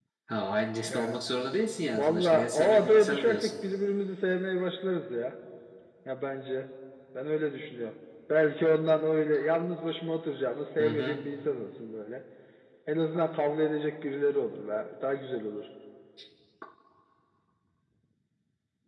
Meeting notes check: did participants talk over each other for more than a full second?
Yes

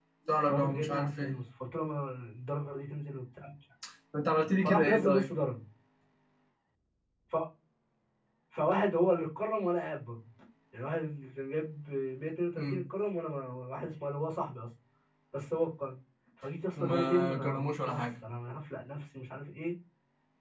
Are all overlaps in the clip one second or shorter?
No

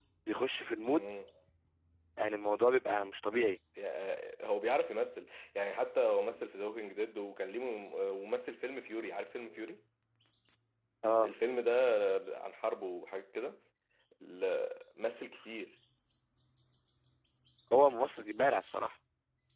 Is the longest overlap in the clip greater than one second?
No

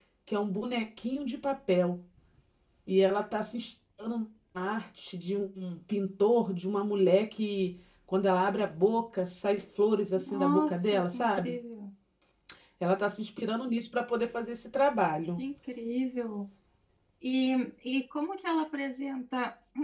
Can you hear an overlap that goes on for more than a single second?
Yes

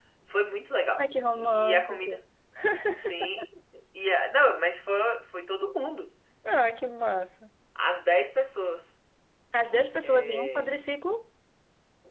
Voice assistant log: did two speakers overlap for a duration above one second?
Yes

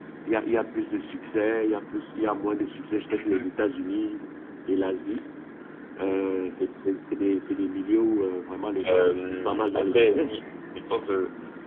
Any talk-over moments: Yes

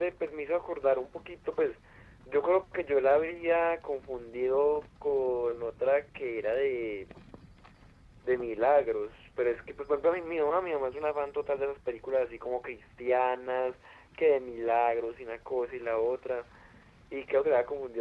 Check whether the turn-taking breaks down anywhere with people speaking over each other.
No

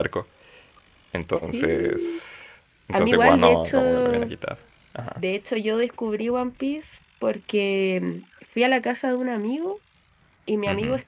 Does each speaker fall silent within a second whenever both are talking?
No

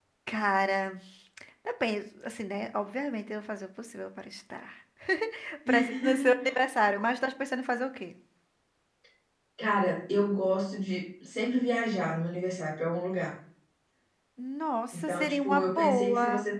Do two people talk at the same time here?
Yes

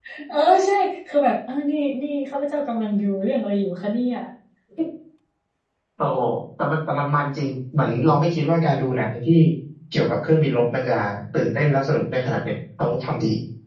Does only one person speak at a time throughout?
Yes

